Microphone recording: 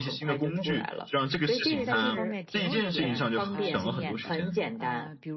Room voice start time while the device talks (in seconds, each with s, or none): 1.7 s